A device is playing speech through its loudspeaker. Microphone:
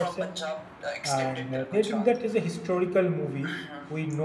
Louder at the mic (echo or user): user